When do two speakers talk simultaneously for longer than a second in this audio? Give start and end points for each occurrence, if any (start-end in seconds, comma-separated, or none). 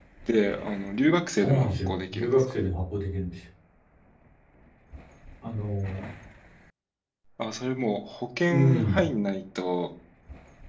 1.4-2.6